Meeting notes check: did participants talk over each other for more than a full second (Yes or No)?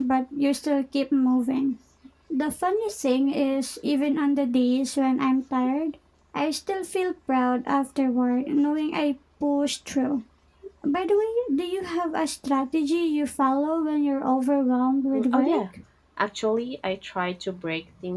No